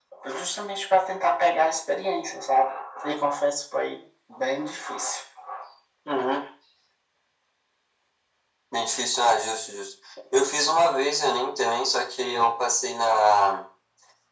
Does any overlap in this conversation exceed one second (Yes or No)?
No